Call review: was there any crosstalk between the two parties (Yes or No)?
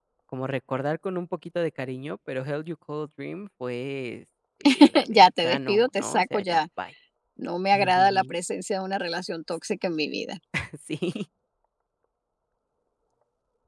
Yes